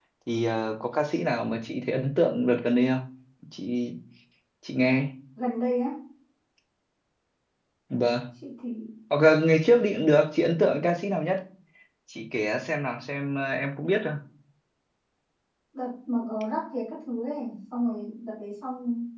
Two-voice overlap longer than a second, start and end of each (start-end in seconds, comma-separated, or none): none